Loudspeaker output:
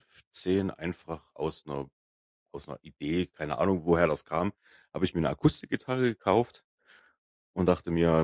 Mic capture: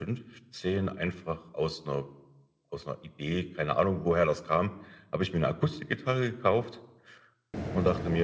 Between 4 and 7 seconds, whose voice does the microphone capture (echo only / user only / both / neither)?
echo only